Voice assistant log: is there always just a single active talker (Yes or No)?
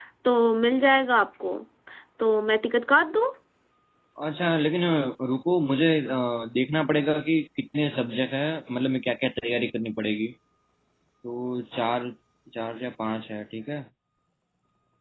Yes